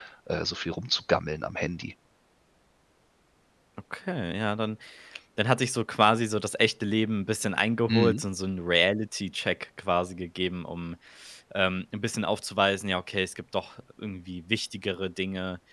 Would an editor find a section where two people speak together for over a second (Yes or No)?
No